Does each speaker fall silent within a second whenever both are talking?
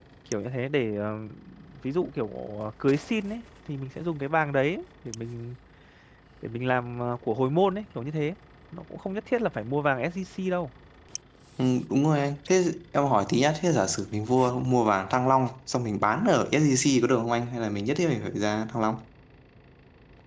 Yes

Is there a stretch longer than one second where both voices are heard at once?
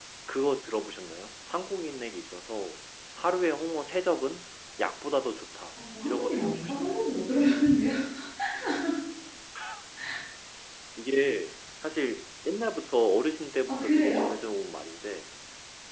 Yes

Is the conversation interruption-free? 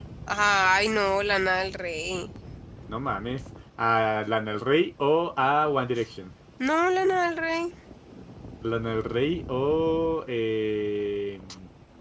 Yes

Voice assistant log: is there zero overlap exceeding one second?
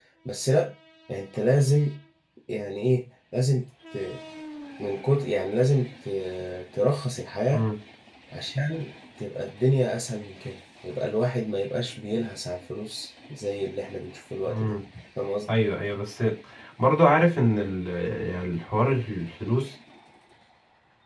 Yes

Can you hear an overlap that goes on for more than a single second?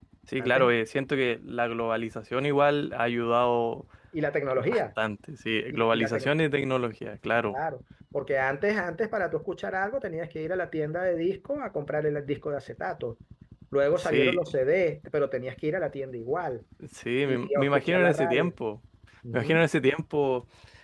Yes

